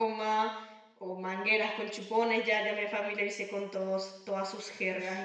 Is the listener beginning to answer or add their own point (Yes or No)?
No